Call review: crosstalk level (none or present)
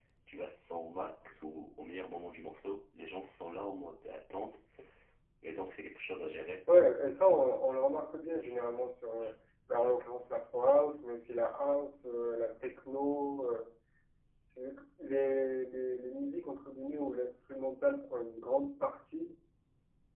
none